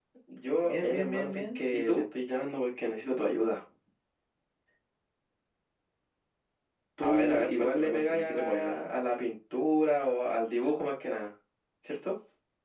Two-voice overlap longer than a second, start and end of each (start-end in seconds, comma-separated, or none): 0.6-2.0, 7.0-8.7